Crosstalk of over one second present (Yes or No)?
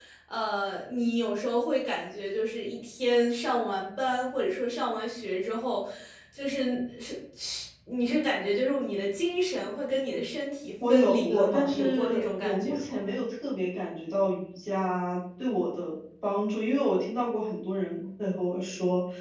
Yes